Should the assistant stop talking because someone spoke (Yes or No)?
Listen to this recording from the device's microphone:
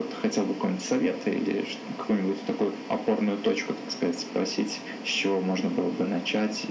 No